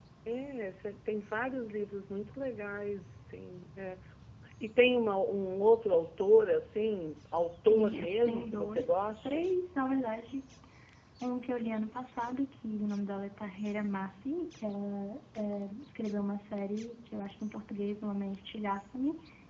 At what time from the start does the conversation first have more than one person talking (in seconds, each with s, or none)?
7.7 s